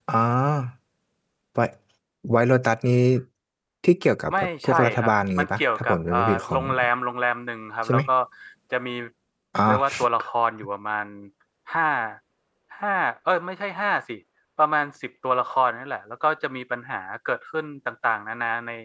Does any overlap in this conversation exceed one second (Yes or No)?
Yes